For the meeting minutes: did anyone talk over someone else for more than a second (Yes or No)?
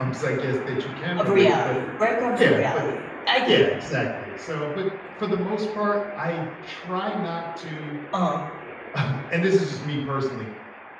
No